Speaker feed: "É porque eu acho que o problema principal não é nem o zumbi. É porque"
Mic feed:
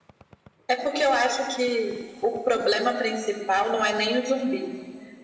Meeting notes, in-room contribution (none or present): none